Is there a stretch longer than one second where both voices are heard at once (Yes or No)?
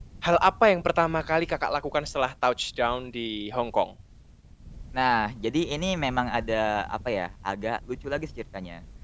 No